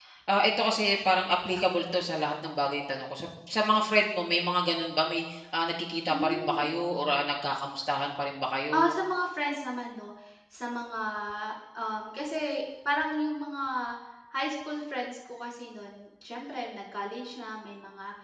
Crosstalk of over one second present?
No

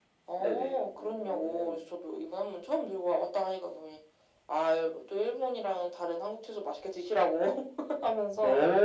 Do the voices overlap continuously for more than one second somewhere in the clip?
Yes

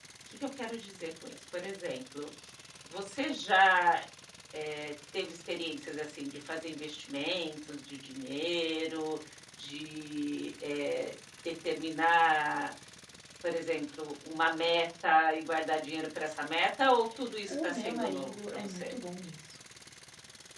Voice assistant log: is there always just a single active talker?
No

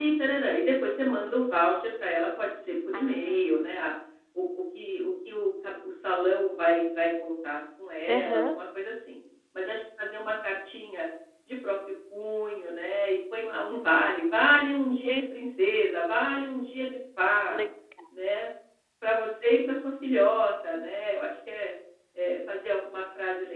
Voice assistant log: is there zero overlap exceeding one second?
Yes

